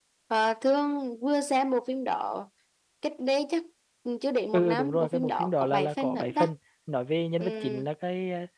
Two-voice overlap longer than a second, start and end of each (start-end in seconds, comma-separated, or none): 4.5-6.5